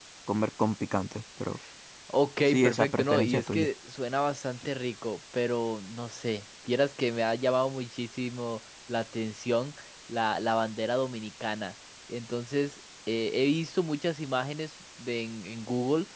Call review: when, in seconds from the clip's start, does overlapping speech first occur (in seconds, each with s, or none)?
2.5 s